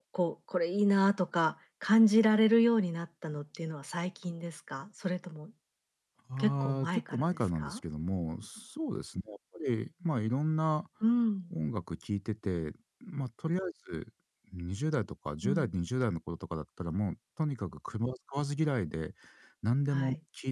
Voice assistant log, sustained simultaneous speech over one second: present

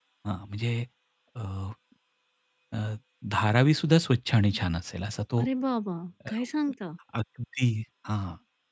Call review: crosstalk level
none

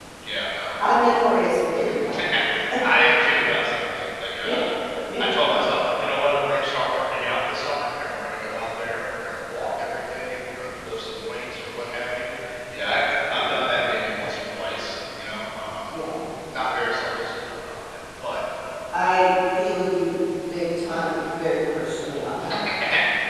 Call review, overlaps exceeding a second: none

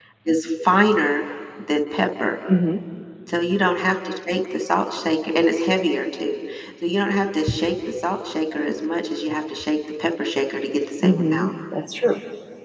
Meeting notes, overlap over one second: none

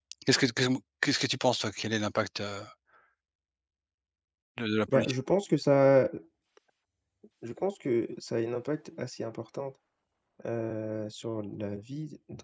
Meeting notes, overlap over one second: none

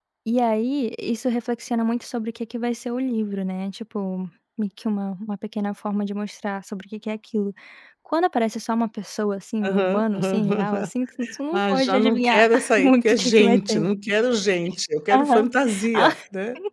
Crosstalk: present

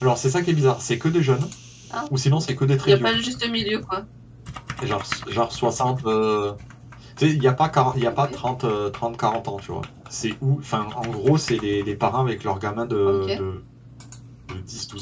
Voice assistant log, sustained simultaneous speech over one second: none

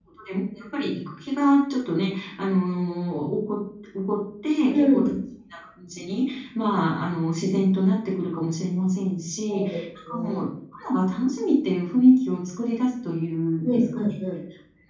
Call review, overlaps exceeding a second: none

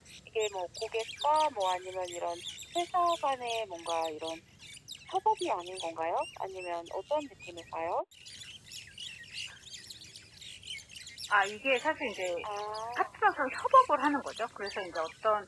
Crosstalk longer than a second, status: none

